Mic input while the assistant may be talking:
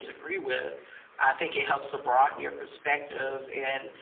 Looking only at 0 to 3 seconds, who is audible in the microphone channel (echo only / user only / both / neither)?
echo only